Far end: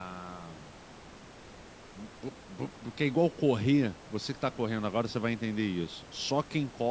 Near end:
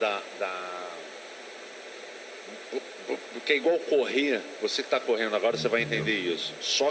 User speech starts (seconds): 5.5 s

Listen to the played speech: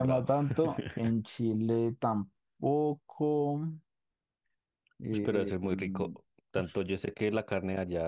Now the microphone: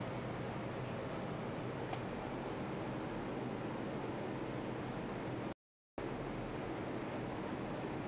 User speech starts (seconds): none

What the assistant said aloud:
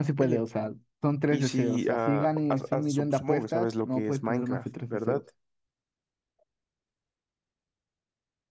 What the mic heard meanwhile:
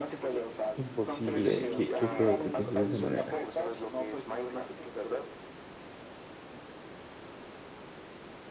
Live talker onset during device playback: 0.8 s

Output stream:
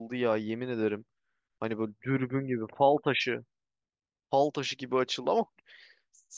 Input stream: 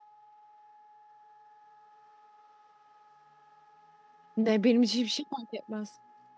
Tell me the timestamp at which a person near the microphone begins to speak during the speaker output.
4.4 s

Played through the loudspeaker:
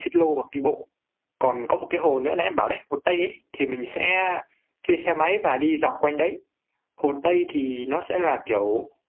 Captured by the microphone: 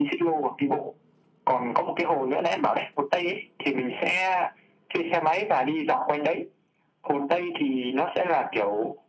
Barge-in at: none

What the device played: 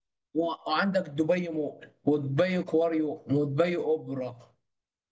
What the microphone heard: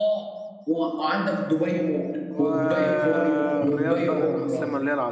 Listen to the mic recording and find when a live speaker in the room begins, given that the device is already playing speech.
2.3 s

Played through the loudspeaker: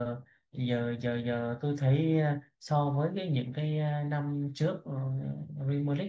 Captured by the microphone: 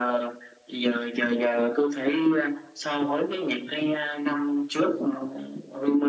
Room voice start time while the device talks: none

